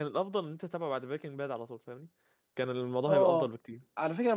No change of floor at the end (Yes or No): No